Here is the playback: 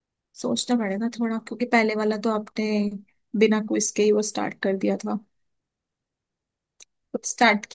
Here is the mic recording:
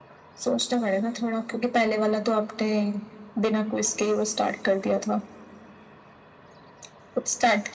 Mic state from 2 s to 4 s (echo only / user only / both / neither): echo only